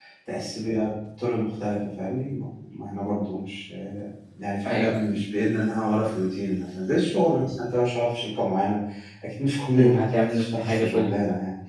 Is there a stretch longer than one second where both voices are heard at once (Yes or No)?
Yes